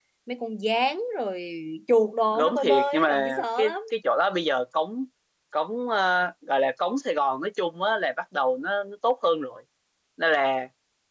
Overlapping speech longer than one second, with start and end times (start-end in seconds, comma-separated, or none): 2.4-3.7